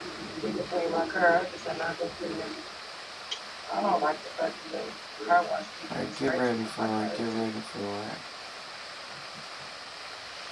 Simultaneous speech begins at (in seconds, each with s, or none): 5.9 s